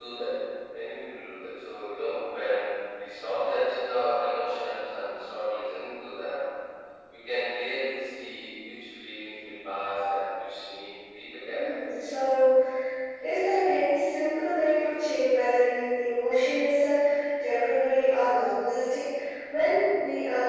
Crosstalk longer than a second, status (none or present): none